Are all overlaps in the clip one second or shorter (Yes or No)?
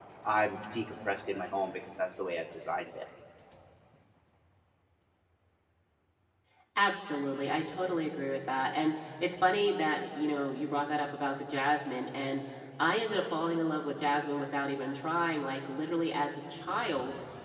Yes